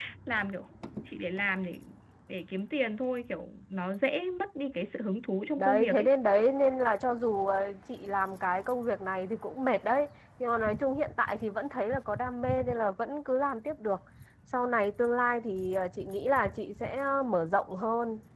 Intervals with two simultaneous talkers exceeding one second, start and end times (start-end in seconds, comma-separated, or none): none